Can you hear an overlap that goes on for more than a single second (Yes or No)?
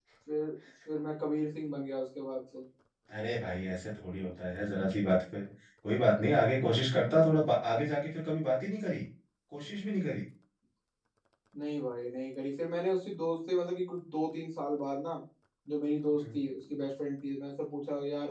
No